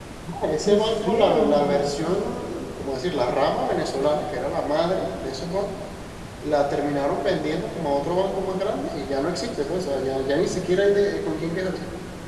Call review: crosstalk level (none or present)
present